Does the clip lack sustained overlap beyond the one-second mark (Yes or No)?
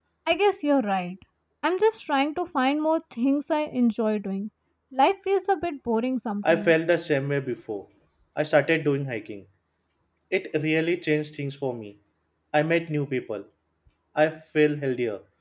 Yes